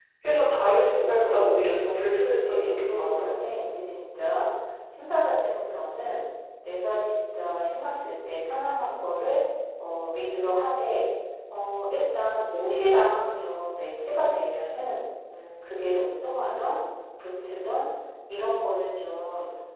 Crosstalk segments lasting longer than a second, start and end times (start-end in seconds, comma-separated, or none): 2.1-3.3